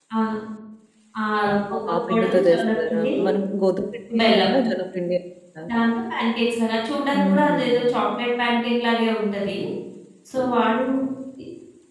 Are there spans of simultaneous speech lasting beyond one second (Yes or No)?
Yes